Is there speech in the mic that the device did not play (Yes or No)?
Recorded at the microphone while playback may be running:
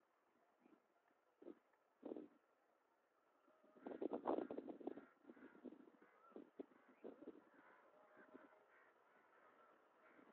No